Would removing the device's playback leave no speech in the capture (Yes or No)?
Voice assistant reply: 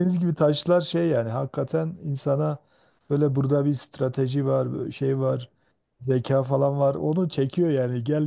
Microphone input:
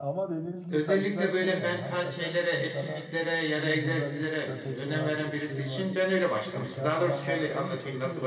No